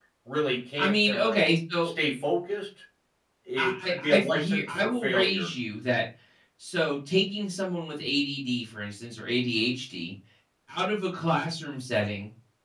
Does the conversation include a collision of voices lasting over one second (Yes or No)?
Yes